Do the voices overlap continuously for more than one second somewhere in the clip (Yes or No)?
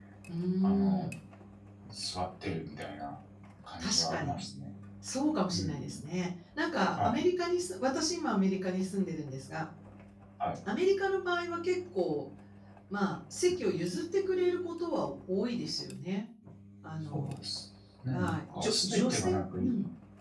Yes